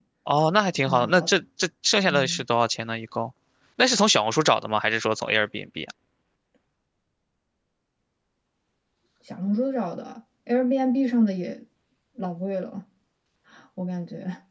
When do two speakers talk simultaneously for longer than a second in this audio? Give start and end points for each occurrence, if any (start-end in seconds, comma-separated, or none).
none